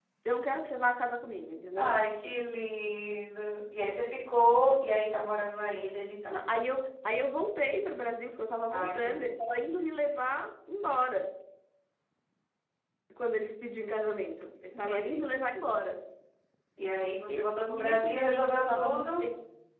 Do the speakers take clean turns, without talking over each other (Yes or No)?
No